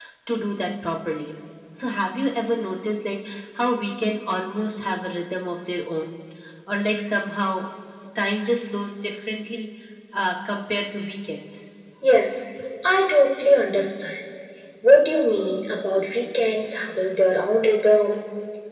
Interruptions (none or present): none